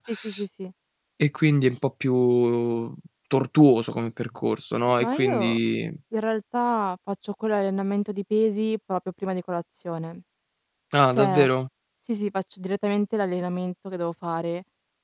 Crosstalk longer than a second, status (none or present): none